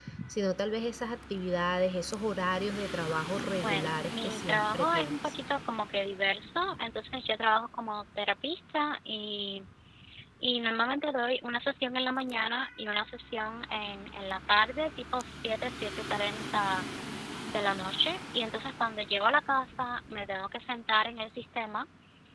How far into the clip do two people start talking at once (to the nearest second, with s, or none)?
3 s